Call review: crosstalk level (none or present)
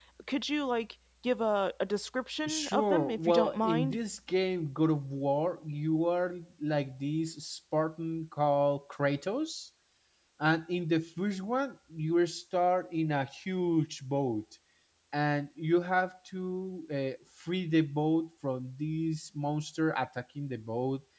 present